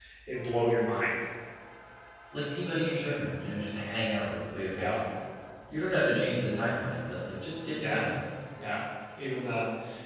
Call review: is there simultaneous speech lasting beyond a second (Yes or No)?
No